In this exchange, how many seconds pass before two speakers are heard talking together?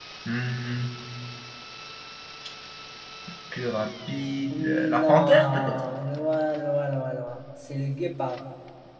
4.5 s

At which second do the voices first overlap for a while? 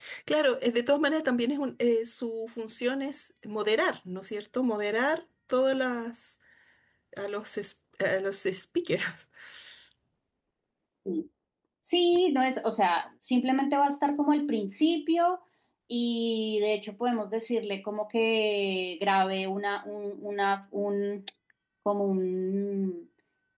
none

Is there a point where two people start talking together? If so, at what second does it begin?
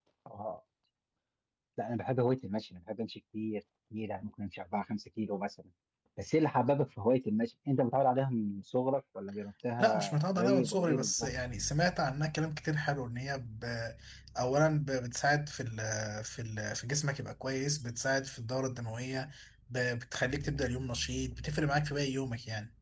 9.8 s

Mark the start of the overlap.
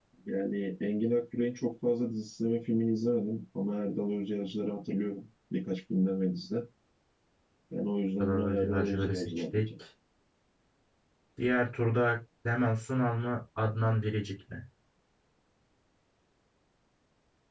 8.2 s

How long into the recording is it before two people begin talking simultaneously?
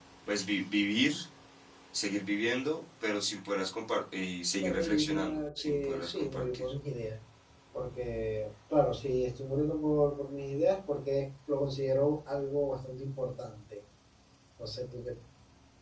4.6 s

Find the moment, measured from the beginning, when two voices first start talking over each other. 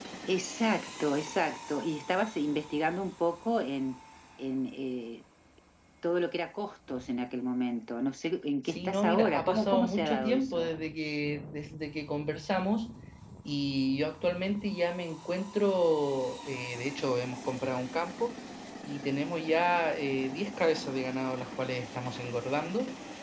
8.7 s

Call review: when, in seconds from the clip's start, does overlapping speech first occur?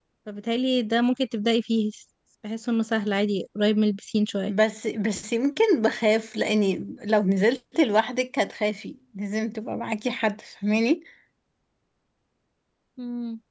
none

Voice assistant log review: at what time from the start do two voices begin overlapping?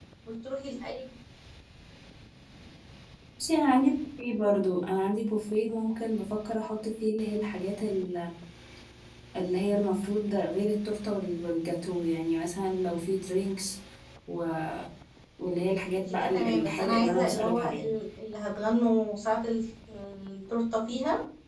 15.9 s

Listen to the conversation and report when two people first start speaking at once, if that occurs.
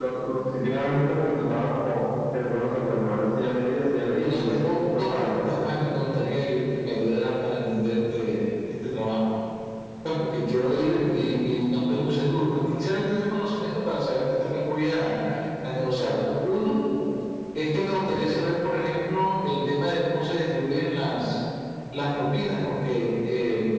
4.1 s

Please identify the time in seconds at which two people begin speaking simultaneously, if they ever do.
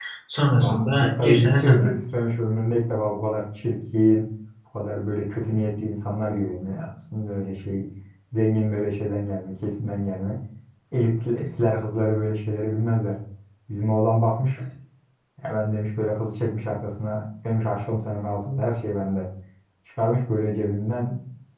0.6 s

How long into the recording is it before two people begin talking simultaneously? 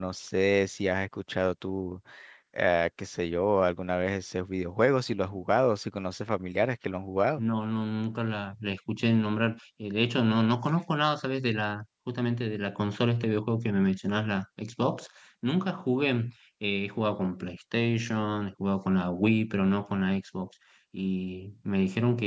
none

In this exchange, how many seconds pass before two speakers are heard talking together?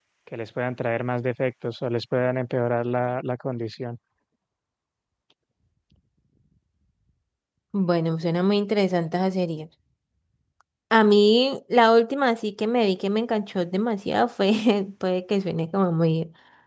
none

